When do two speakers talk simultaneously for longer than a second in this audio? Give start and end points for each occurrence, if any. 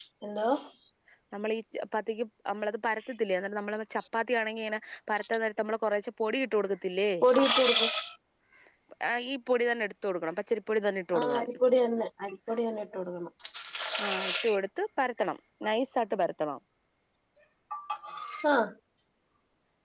none

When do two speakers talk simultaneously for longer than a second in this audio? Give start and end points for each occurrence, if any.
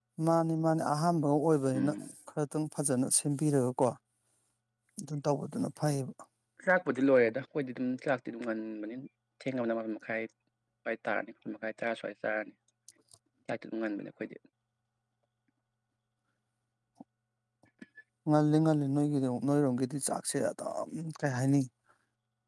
none

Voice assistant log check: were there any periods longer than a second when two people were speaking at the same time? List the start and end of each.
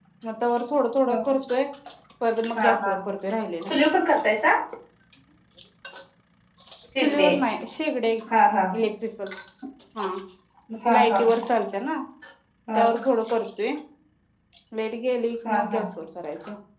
none

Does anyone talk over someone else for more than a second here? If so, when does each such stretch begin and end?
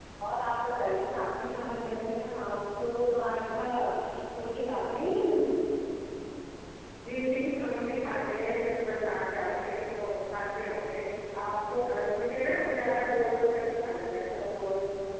none

